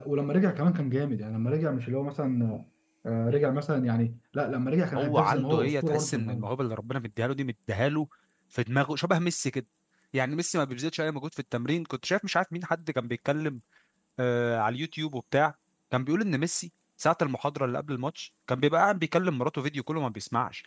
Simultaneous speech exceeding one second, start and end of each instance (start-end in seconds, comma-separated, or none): 5.0-6.4